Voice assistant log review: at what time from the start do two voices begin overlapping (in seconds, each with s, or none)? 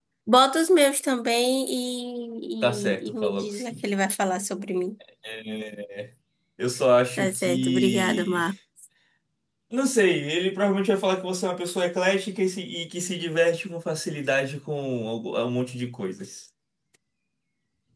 2.6 s